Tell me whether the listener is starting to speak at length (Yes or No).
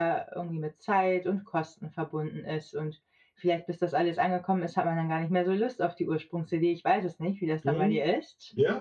Yes